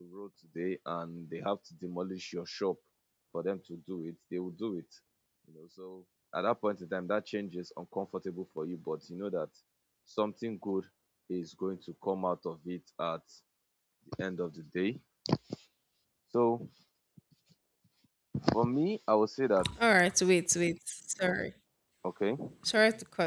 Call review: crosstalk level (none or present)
none